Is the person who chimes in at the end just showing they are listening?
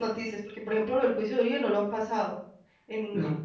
Yes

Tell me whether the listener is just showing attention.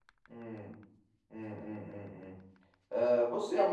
Yes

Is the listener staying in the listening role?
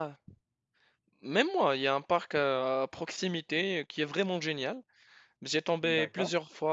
Yes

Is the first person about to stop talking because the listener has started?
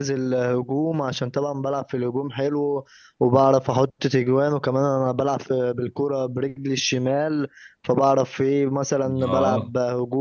No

